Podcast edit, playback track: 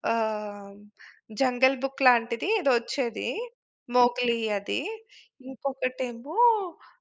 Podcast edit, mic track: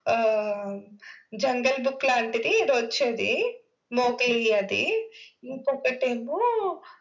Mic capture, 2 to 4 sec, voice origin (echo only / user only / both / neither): echo only